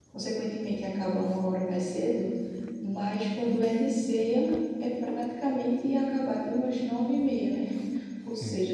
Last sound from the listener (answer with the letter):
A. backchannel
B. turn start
A